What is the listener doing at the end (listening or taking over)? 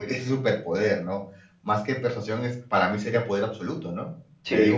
listening